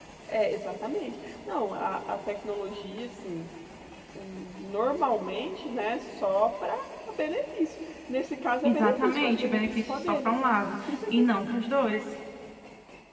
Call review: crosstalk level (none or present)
present